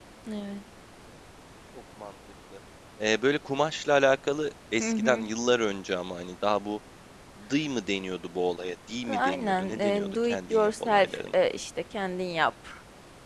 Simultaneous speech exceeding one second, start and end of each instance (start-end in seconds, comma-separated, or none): 9.1-11.3